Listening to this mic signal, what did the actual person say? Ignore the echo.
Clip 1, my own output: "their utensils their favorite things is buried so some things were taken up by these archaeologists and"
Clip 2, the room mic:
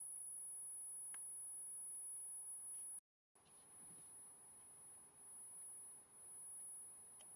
none

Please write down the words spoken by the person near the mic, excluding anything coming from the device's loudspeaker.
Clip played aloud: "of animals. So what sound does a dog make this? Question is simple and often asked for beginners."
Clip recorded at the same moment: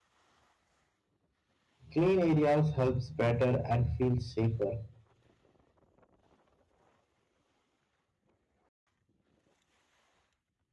Clean areas helps better and feel safer.

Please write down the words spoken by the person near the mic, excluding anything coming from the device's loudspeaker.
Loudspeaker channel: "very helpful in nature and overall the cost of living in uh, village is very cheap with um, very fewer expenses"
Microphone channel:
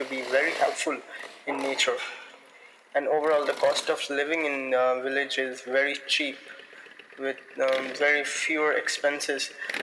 none

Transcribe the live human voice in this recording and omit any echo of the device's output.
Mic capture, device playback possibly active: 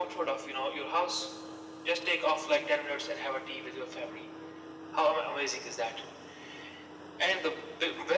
none

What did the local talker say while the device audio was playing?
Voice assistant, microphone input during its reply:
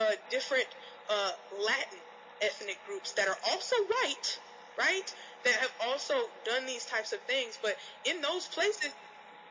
none

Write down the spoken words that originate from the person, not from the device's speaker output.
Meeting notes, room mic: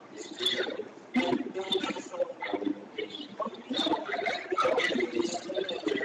none

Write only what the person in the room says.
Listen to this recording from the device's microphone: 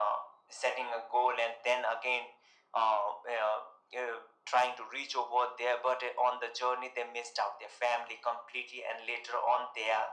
none

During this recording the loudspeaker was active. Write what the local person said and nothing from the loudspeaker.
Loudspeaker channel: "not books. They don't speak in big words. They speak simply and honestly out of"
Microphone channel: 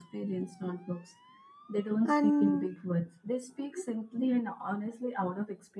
and

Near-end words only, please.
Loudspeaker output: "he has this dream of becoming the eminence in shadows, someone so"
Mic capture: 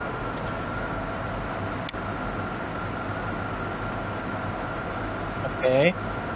Okay.

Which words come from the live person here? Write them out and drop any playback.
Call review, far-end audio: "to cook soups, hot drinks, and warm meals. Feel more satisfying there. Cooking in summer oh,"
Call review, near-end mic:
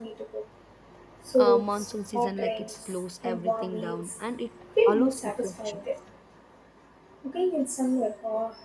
uh, monsoon season like it slows everything down and it allows reflections

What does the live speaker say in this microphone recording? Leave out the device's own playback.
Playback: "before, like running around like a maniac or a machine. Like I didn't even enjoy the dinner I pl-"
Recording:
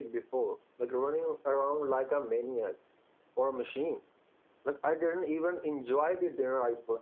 none

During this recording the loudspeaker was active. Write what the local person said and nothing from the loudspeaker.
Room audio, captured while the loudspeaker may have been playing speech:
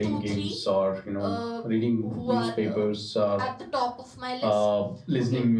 none

